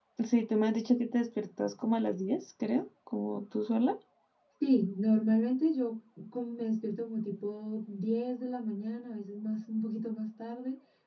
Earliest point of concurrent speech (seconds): none

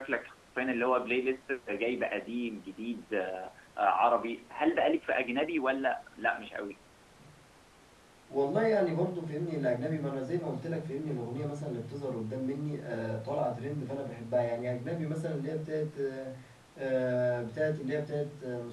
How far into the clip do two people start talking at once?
none

